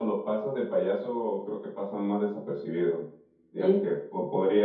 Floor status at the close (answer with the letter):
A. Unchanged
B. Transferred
A